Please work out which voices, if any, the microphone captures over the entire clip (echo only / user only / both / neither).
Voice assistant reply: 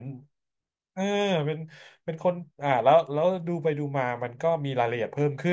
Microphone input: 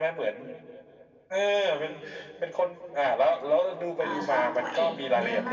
both